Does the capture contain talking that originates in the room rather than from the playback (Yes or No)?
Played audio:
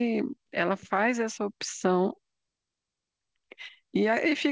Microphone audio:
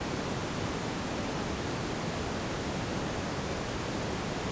No